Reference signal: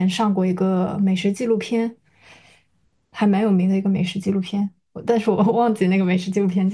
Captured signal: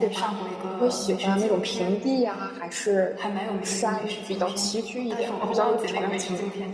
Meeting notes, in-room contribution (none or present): present